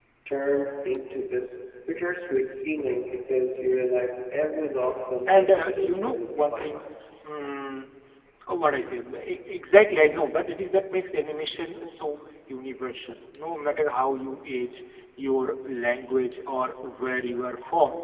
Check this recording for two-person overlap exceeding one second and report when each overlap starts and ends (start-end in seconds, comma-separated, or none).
5.3-6.8